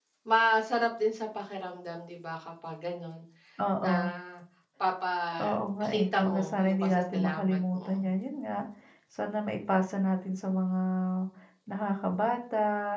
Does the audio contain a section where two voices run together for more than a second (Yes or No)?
Yes